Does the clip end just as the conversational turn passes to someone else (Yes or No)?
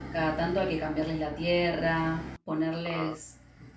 No